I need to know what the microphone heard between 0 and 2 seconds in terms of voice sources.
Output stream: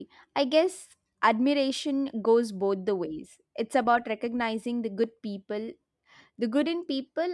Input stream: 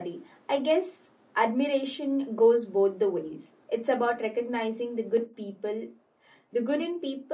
echo only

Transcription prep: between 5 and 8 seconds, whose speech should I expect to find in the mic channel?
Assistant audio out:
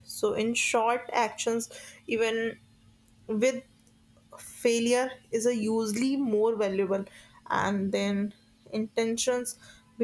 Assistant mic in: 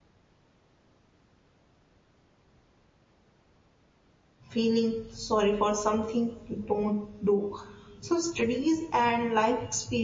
user only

